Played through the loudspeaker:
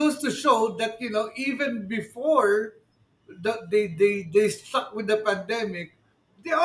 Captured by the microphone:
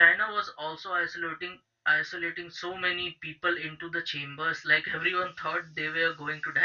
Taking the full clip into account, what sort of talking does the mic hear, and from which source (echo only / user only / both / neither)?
user only